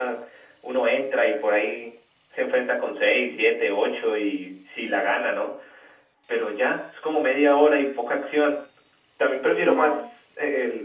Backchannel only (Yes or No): Yes